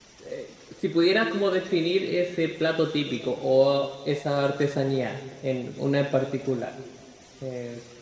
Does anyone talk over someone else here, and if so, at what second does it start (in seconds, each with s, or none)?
none